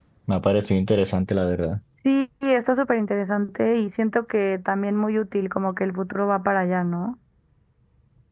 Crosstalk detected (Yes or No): No